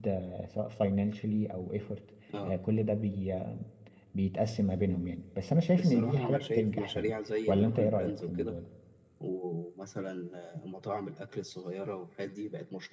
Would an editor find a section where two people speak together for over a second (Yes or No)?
Yes